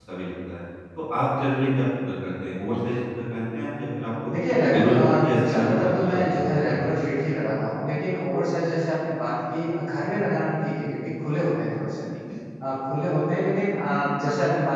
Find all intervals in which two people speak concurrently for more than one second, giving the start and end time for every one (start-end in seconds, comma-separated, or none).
4.7-6.8